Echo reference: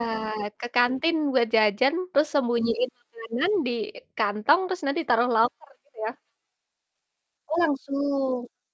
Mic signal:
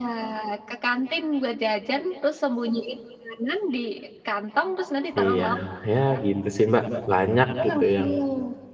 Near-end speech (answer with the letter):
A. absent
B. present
B